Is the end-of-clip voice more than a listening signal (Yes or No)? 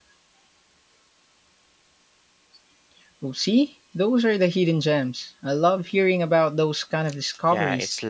Yes